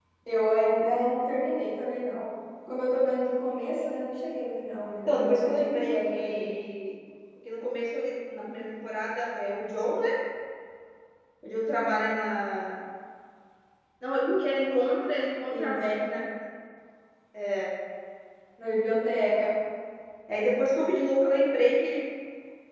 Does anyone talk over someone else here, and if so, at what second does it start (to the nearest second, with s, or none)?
5 s